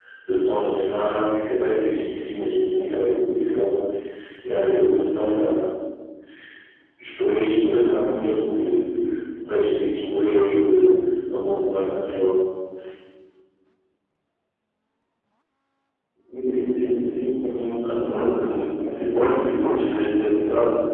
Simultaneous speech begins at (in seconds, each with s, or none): 17.8 s